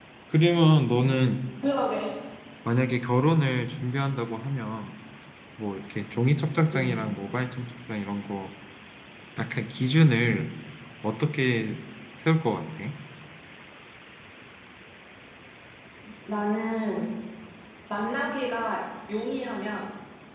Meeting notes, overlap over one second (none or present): none